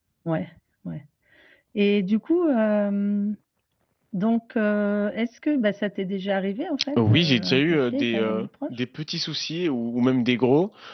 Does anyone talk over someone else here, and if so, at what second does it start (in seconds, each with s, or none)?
7.0 s